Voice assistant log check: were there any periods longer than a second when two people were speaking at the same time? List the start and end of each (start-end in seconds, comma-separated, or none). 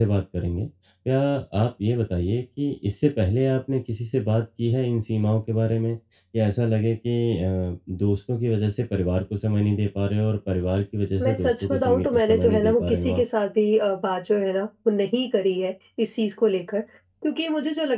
11.2-13.2